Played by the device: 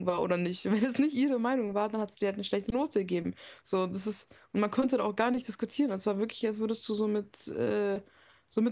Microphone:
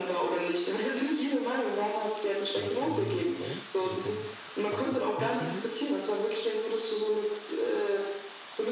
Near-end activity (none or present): present